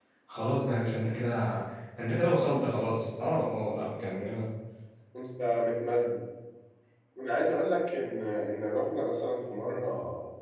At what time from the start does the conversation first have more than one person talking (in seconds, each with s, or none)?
none